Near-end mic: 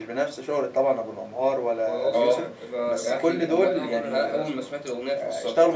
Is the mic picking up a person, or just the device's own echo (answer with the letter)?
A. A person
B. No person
A